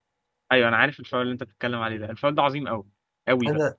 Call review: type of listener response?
listening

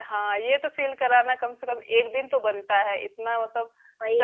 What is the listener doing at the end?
listening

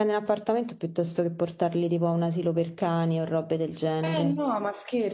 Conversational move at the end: taking over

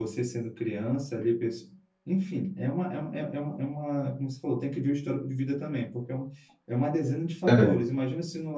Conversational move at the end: listening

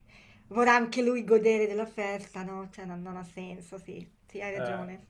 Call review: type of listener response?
taking over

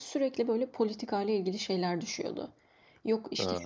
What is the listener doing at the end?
listening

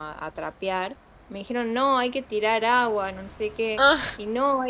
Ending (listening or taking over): listening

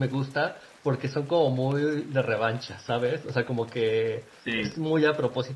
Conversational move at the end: listening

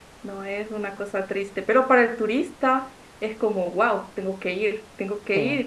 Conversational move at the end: listening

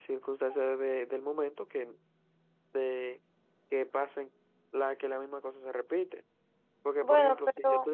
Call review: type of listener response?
listening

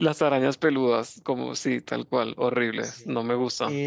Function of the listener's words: taking over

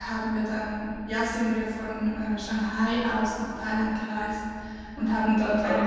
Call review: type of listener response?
listening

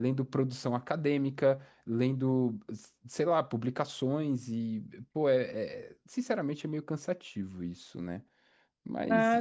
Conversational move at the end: taking over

